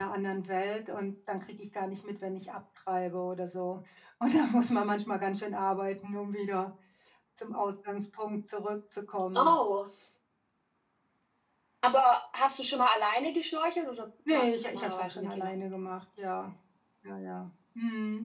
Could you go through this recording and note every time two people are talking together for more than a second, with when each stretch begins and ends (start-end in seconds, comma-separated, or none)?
14.3-15.6